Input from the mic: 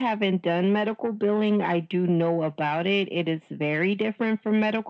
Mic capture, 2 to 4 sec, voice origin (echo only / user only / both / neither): echo only